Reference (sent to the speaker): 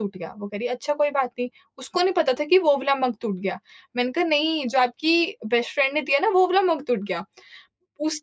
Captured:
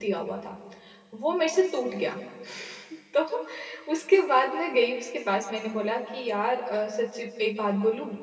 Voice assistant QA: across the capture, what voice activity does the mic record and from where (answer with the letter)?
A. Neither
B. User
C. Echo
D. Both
B